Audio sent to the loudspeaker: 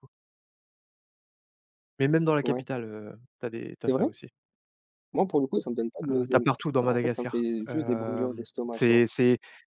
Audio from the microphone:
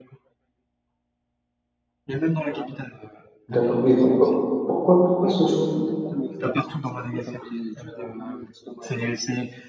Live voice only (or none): D'accord, mais pourquoi pourquoi pourquoi ce choix?